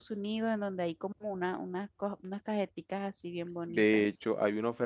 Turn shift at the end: Yes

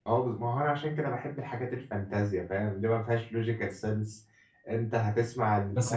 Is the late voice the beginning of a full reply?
Yes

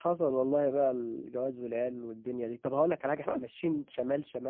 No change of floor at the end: Yes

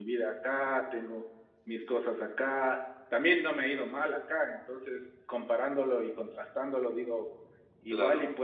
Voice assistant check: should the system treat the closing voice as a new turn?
No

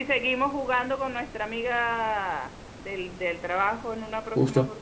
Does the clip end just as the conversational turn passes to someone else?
Yes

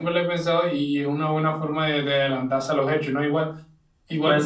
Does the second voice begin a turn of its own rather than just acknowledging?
No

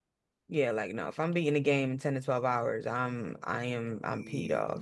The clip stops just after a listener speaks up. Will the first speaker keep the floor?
No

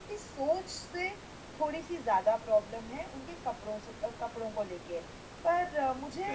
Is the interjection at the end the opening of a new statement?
Yes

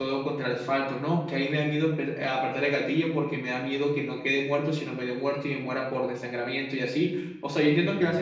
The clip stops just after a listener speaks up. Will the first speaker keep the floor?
Yes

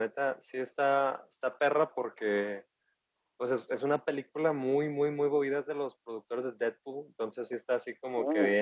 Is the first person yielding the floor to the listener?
No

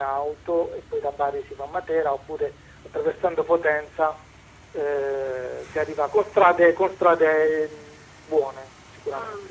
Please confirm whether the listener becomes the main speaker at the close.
Yes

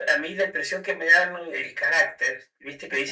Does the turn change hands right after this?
No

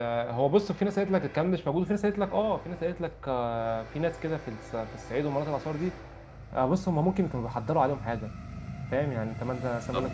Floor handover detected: No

